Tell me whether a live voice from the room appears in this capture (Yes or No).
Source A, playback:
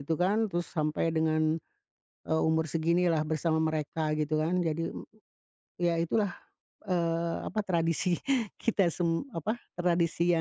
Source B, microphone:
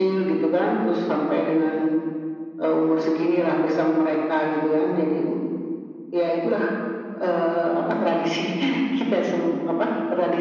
No